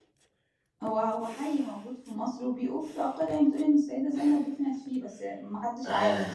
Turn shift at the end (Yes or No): Yes